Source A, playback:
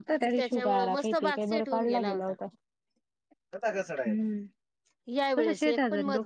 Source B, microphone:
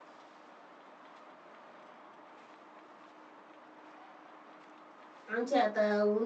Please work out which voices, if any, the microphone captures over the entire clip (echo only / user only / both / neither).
user only